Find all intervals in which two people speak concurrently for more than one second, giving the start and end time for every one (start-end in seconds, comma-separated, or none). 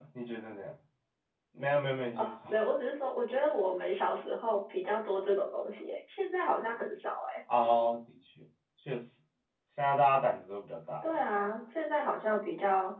none